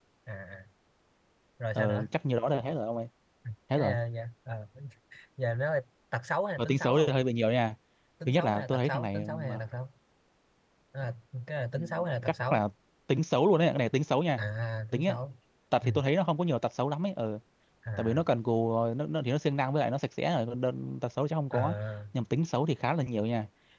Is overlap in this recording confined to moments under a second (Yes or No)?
No